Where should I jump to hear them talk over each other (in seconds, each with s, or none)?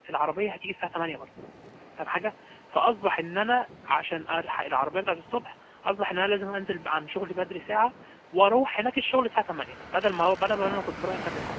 none